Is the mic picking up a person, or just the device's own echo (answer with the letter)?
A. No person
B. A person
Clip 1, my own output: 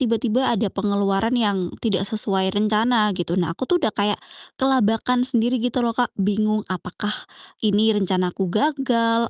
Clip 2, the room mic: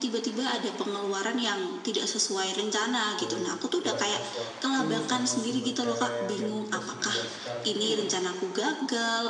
B